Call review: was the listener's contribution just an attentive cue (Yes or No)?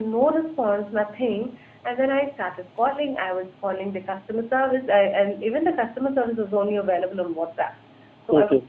Yes